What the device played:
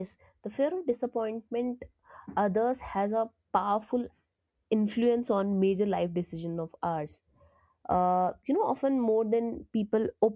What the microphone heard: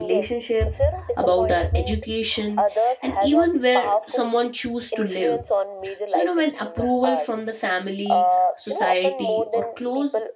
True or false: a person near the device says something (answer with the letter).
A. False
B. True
B